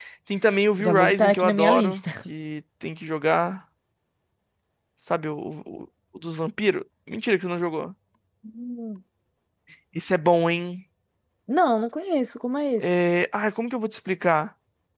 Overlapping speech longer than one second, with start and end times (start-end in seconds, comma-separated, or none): 0.8-2.0